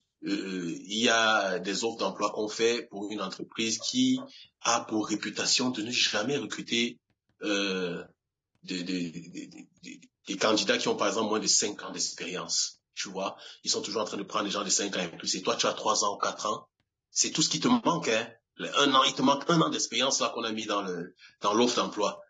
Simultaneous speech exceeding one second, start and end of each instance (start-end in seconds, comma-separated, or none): none